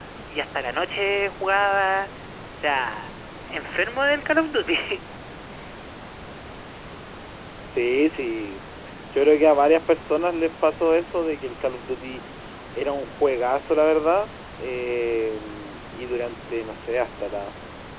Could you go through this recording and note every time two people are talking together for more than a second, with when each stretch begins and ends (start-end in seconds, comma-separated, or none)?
none